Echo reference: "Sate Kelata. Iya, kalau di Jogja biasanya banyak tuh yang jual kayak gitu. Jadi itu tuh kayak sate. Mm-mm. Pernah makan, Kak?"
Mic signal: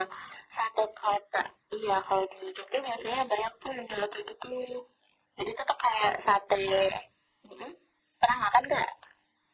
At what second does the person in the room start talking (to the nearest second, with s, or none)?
none